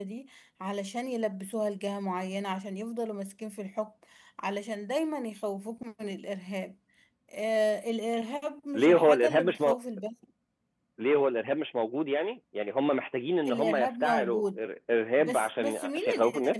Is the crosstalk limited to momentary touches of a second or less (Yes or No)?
No